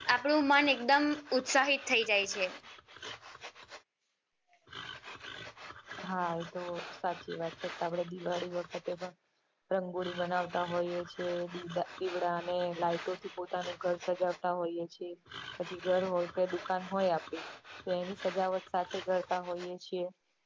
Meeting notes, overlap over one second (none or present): none